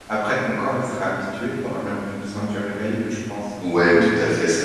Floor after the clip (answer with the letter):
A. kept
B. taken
B